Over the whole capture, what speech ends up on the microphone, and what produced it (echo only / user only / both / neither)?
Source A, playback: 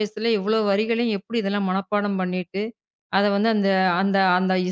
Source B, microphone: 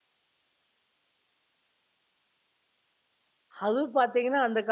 user only